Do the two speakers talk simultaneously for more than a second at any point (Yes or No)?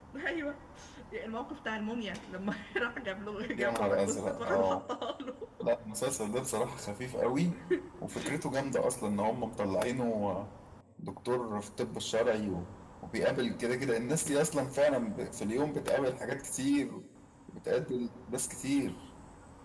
Yes